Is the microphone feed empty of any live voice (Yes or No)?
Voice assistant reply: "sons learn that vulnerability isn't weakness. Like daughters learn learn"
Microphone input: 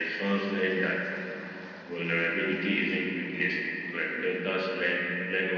Yes